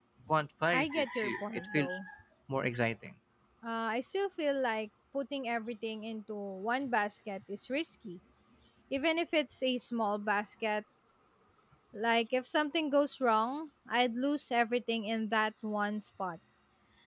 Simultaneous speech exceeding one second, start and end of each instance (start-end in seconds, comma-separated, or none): 0.7-1.9